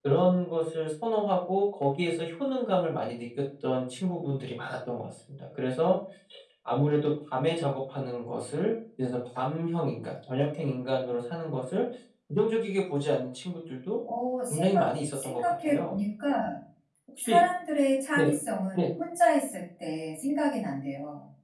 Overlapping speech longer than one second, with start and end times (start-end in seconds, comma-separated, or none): 14.5-15.9